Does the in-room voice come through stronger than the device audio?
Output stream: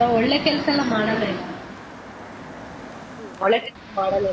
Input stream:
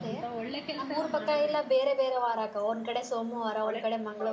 Yes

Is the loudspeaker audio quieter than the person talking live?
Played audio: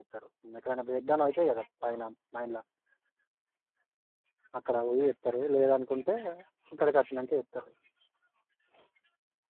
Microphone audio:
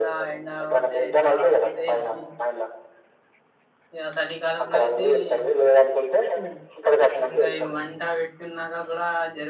No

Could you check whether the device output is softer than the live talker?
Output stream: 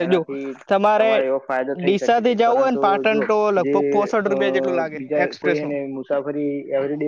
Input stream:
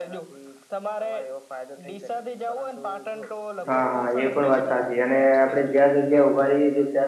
Yes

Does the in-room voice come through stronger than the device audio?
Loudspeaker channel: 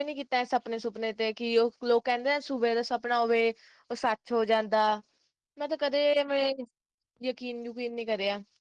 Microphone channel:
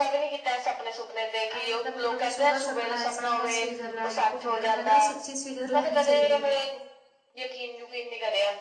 No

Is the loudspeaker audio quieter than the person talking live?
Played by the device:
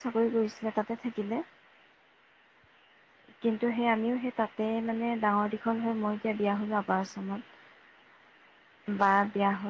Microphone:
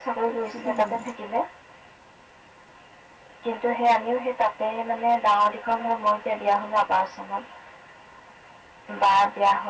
No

